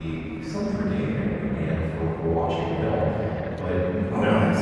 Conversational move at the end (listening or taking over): listening